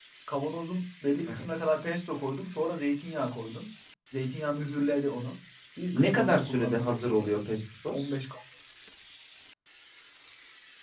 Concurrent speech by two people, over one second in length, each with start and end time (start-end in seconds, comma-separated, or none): 5.9-7.4